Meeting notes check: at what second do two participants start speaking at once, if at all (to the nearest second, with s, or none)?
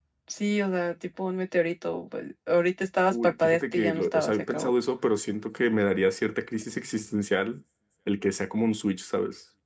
3 s